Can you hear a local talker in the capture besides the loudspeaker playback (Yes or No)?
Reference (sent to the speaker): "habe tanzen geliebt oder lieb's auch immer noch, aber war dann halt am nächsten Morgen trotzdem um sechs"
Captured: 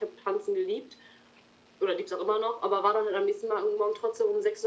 No